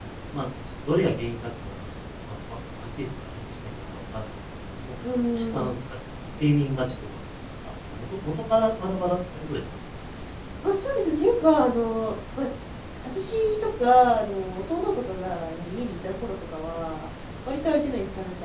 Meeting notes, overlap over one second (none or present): none